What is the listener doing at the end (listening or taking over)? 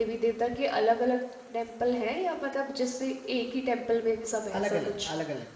taking over